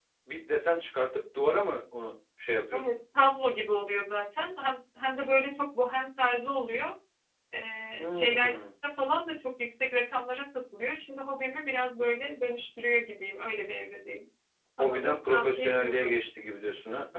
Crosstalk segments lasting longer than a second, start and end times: 14.8-16.3

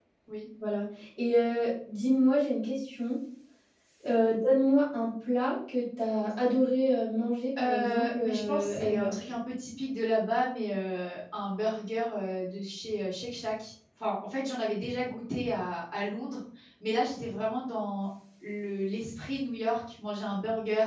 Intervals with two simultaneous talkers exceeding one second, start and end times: 7.6-9.1

